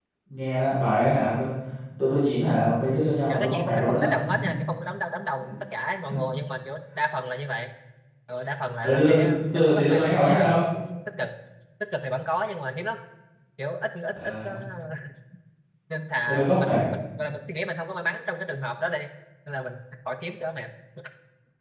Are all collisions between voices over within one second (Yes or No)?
No